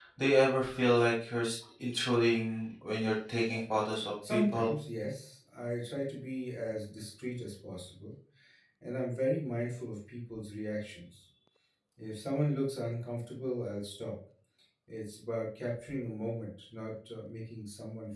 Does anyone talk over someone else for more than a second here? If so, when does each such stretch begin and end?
none

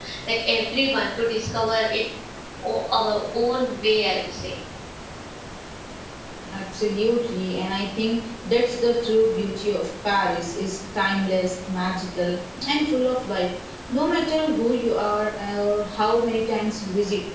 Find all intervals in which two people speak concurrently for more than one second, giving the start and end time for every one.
none

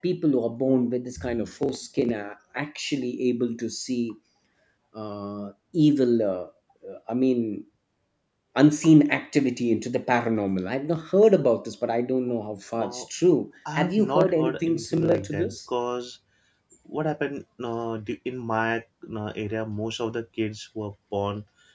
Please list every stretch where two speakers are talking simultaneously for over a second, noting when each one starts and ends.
13.8-15.6

